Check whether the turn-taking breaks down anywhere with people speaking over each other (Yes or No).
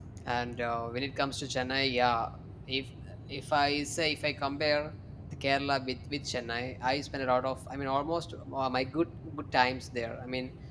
No